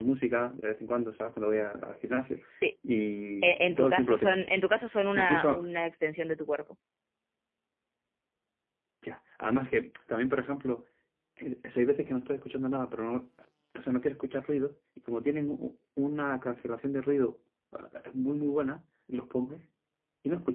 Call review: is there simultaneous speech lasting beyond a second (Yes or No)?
Yes